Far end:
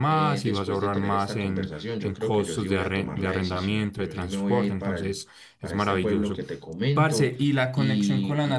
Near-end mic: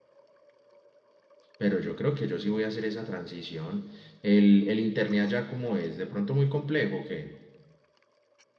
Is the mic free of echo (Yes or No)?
Yes